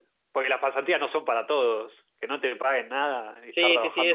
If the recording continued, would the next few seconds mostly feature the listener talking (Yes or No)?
Yes